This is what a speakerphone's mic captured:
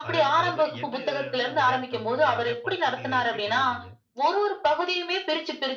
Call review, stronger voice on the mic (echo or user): echo